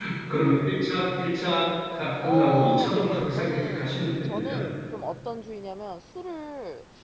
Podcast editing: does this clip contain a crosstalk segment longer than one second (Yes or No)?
Yes